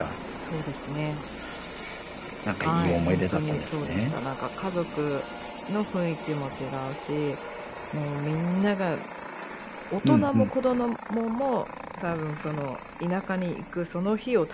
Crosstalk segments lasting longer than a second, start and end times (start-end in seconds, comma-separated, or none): 2.6-4.2